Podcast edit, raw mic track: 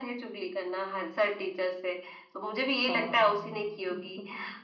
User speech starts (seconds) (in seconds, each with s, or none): 2.9 s